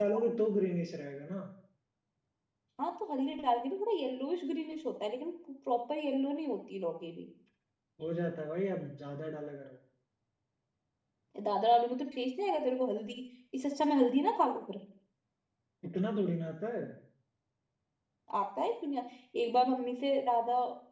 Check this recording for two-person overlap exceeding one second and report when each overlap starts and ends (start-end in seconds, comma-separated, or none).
none